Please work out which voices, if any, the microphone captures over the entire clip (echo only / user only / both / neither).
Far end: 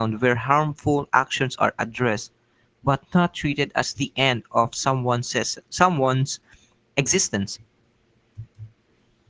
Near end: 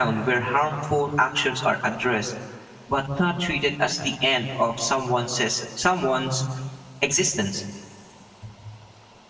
echo only